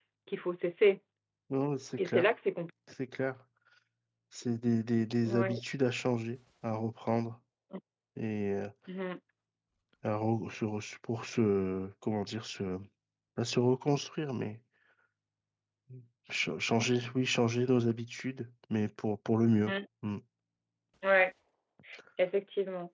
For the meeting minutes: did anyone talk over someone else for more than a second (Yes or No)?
No